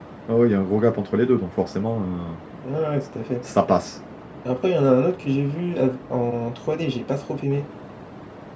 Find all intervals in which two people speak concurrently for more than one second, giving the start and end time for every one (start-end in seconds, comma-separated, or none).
none